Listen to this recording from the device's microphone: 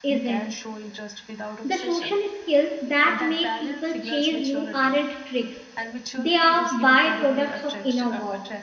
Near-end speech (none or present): present